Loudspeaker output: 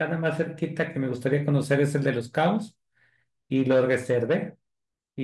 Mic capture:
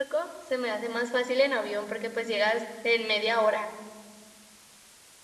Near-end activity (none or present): present